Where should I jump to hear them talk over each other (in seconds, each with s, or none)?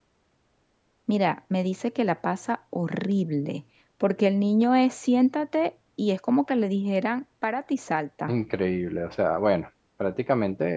none